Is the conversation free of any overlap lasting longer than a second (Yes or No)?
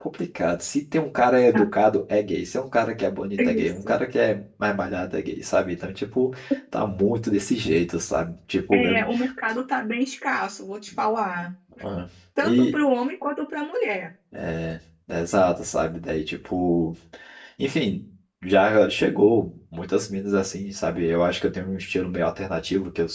Yes